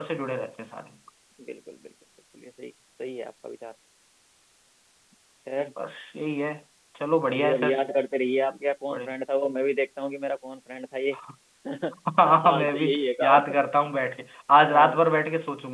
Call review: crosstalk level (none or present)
present